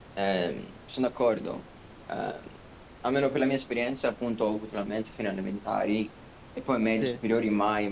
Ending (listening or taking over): listening